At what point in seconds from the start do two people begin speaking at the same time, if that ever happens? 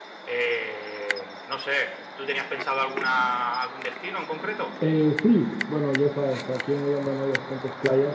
none

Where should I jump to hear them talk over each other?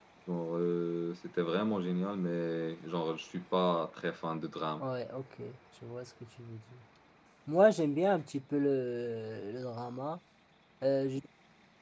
none

